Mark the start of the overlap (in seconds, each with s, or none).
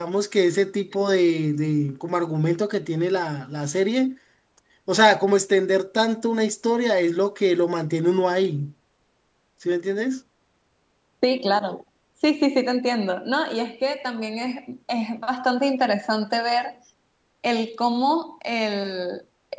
none